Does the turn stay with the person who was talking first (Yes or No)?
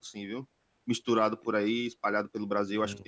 No